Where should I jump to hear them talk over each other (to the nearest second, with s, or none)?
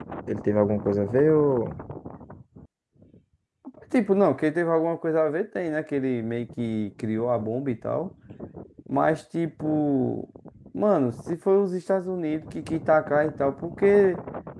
none